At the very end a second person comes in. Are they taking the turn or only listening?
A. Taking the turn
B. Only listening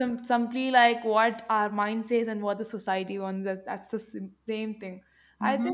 B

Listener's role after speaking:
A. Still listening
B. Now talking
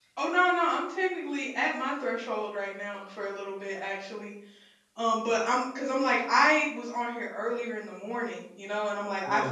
A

